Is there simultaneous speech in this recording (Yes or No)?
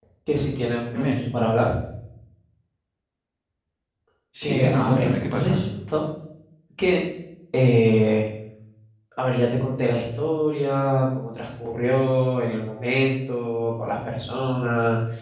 Yes